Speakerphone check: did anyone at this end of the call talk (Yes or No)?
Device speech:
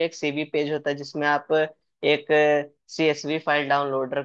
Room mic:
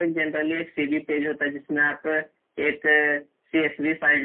No